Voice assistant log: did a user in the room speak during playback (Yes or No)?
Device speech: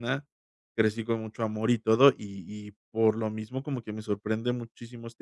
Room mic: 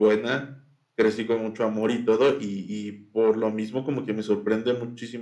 No